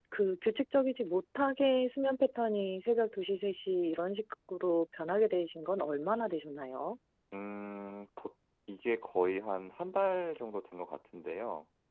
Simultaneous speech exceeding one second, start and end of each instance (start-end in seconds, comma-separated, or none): none